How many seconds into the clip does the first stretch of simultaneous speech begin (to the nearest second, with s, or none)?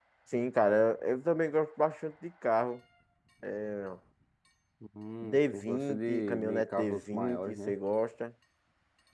5 s